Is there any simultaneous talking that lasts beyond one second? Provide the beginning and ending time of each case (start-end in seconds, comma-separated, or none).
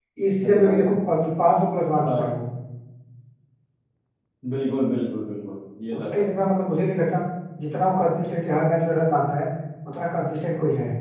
none